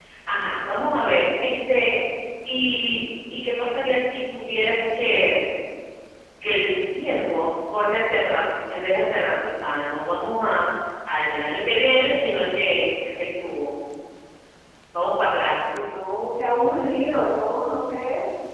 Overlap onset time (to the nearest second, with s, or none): none